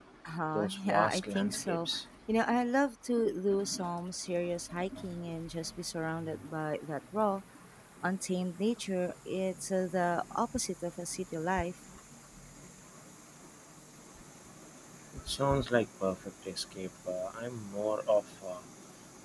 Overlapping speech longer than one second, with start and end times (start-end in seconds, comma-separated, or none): 0.5-1.9